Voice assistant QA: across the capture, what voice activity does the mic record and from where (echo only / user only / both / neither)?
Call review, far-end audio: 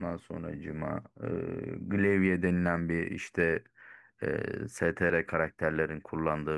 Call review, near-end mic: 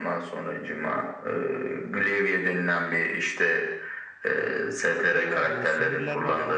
both